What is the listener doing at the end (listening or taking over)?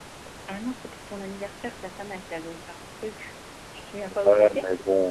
taking over